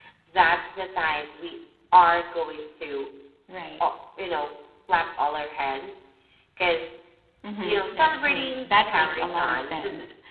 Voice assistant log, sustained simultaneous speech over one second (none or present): present